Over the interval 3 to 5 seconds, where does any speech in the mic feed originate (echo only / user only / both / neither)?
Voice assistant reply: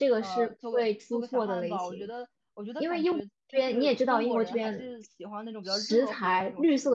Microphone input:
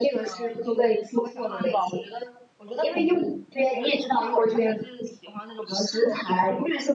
echo only